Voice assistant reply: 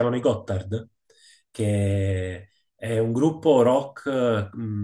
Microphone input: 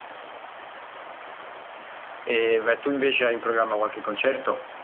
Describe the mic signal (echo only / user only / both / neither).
user only